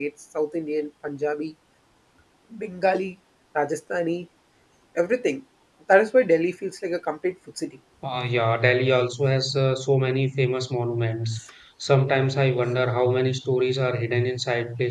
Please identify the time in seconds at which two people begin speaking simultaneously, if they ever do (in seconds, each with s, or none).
none